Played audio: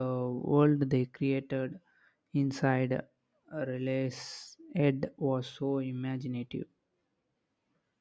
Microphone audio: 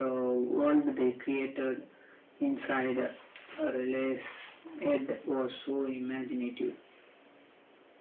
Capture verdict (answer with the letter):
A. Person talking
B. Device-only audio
B